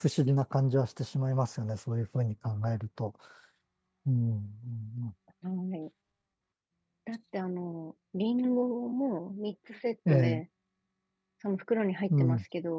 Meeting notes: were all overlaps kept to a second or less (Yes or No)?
Yes